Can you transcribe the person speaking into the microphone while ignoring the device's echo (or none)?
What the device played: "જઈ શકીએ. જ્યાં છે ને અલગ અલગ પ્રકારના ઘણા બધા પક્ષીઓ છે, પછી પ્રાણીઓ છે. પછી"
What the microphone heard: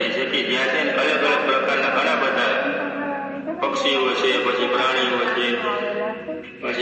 પ્રદ્યુમન પાર્ક કીધું અને પ્રાણી સંગ્રહાલય કીધું ને તેમાં તો અનેક પ્રકારના પ્રાણીઓ આવેલા છે.